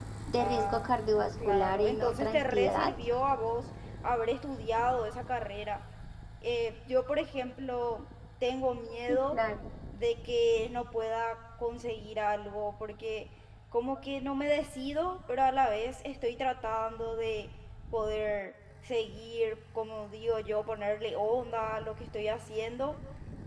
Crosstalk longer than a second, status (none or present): present